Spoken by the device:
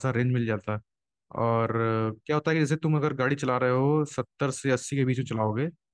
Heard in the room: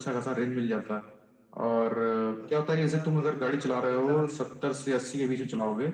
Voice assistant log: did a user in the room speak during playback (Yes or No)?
Yes